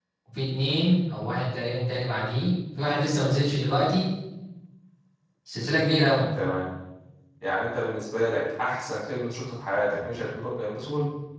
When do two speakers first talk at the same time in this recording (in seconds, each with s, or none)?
none